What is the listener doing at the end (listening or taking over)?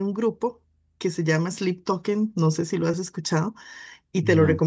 listening